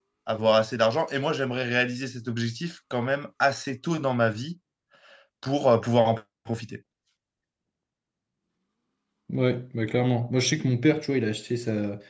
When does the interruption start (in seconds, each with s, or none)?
none